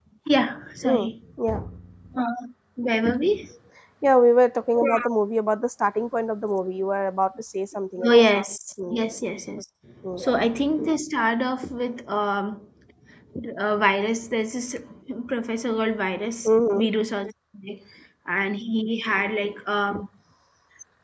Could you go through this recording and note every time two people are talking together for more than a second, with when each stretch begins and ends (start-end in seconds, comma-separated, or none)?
none